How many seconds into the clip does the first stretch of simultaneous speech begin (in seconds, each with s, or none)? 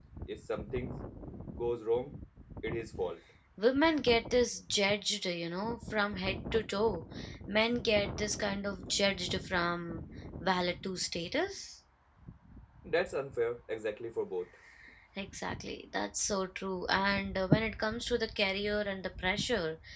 none